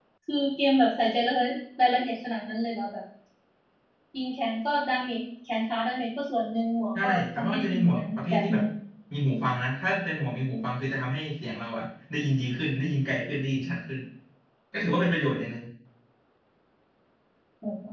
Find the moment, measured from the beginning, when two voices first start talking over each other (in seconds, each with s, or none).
7.0 s